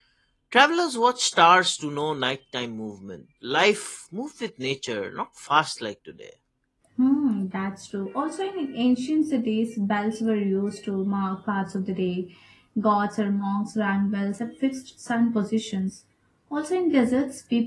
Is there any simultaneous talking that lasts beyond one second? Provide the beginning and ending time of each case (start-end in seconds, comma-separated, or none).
none